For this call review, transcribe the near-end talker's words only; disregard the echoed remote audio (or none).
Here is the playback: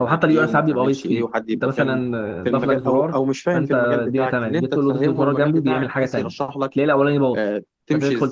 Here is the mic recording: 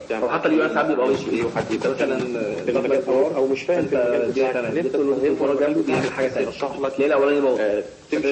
none